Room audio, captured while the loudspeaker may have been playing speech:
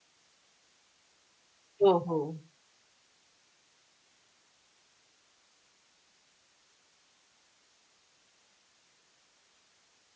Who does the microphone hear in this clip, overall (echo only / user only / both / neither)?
user only